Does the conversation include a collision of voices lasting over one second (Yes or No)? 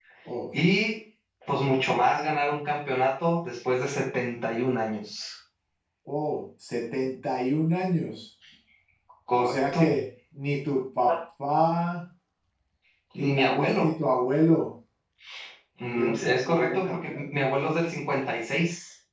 Yes